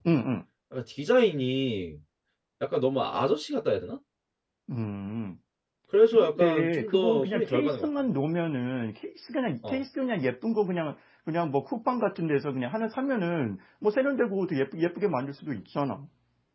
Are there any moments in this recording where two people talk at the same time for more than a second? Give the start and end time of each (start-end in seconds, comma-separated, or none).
6.1-7.9